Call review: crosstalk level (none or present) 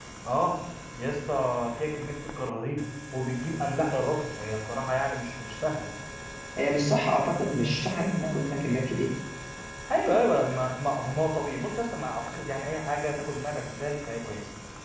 none